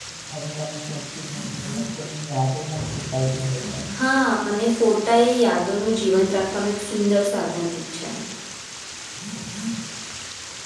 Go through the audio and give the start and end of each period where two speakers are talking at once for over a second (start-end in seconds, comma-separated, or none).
none